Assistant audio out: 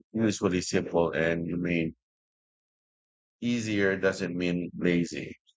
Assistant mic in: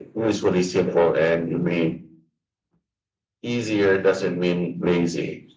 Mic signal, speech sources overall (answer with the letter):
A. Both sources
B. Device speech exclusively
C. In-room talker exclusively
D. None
B